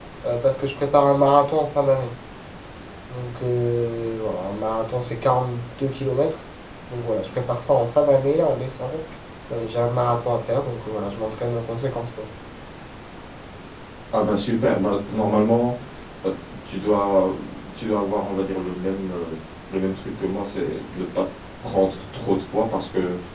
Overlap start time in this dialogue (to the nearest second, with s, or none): none